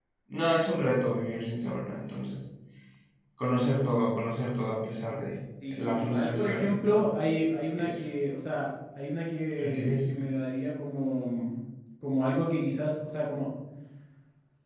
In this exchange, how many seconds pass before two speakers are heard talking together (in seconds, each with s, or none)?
5.7 s